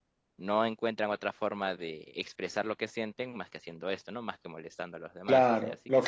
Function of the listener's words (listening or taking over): taking over